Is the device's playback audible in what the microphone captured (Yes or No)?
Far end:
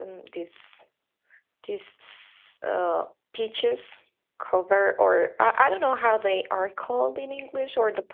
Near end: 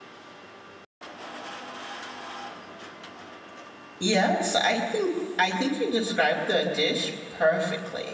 No